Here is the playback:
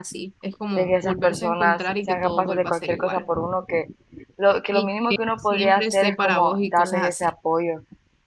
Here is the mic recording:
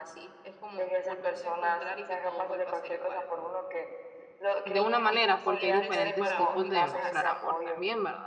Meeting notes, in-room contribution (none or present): present